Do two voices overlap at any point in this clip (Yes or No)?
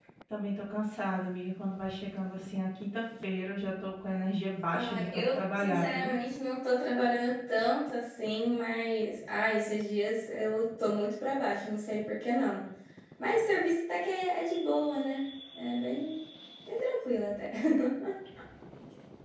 Yes